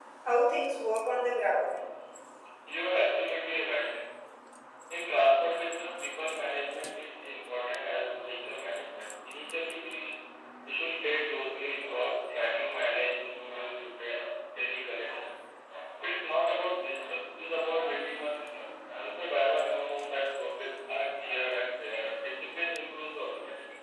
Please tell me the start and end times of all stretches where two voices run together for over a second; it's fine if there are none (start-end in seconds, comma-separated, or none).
none